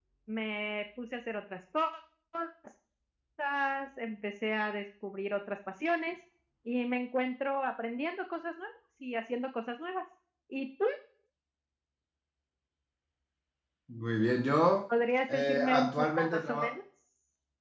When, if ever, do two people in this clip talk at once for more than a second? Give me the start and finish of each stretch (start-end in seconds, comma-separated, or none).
15.3-16.7